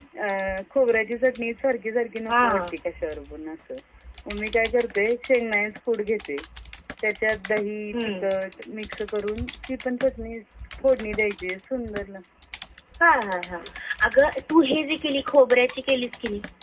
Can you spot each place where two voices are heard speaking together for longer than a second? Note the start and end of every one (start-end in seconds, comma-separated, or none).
none